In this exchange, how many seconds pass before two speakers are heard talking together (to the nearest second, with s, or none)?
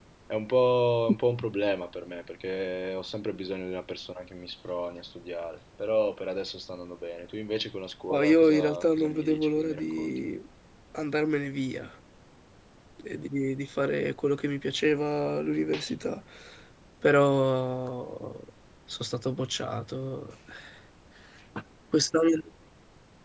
8 s